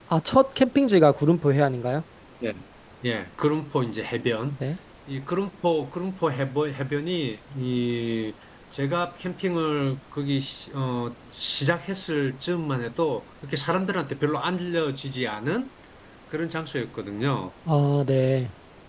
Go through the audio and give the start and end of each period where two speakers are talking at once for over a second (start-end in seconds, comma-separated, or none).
none